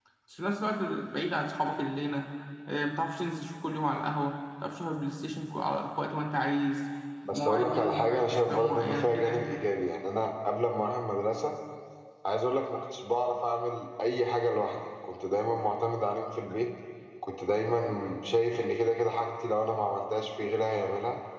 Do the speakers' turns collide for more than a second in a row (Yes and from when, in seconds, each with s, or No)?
Yes, from 7.3 s